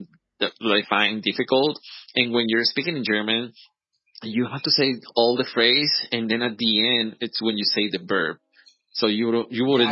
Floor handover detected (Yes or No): Yes